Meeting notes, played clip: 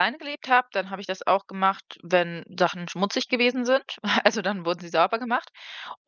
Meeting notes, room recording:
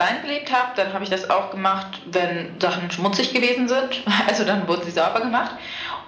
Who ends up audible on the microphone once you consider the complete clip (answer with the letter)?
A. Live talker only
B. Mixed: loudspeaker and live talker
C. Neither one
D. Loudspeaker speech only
D